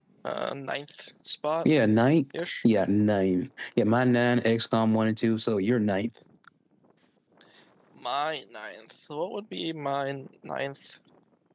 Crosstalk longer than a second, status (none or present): none